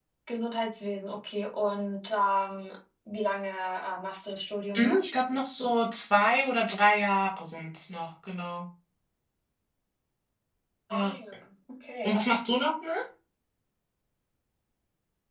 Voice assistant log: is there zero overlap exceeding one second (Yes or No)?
Yes